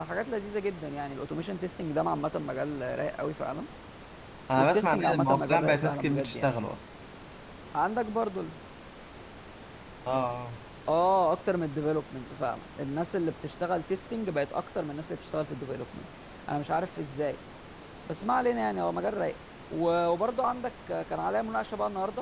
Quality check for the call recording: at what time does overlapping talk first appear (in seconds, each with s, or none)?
4.6 s